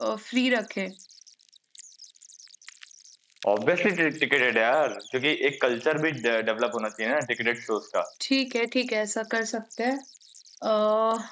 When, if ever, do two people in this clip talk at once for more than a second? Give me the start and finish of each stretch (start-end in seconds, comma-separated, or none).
none